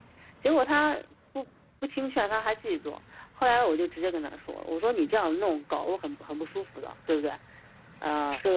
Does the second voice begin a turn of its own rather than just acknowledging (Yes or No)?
No